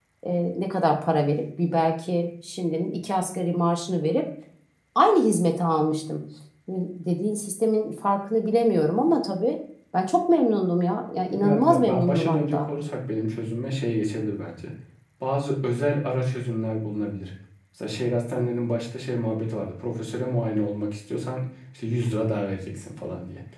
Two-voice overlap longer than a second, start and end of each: 11.3-12.7

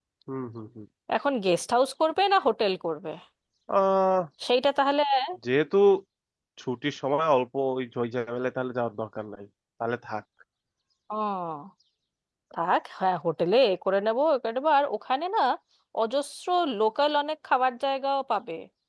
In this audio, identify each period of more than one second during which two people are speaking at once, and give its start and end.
none

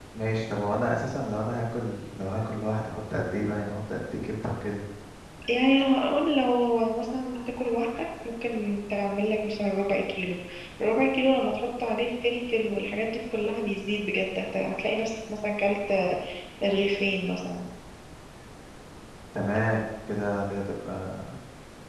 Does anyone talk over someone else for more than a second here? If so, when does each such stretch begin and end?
none

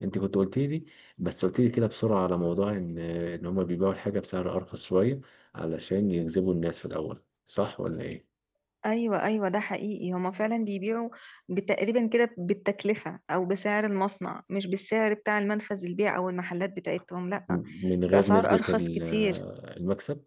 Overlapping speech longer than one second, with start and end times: 18.1-19.4

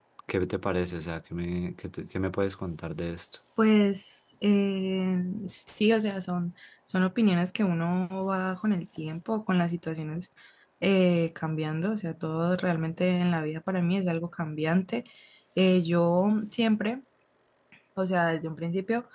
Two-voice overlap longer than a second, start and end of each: none

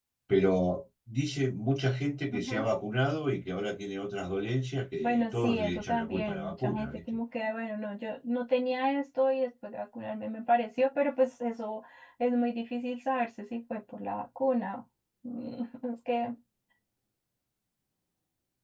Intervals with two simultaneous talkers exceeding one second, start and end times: 5.0-7.0

